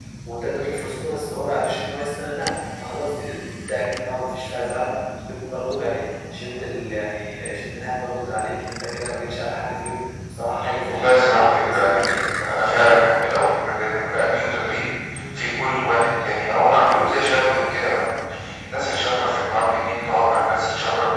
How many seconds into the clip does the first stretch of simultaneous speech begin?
10.9 s

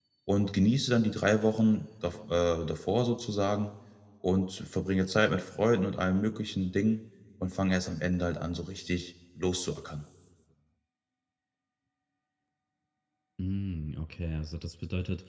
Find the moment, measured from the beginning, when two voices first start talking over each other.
none

